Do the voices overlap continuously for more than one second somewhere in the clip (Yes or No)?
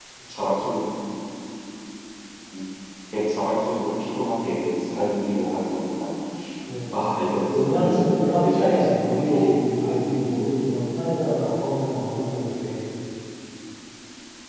Yes